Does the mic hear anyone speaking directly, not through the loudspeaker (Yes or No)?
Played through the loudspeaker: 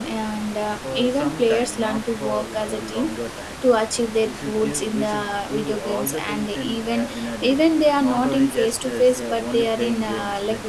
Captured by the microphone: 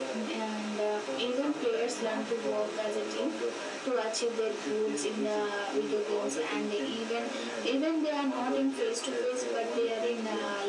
No